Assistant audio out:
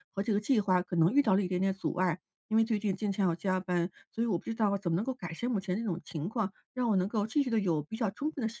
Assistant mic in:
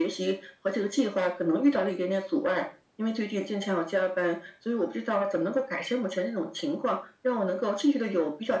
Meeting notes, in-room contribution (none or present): none